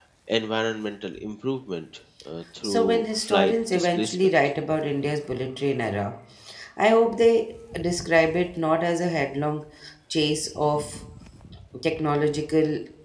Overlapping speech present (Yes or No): Yes